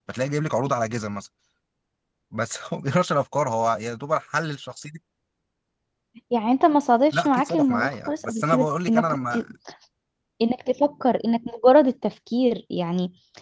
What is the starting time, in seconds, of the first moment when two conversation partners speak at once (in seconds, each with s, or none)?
7.1 s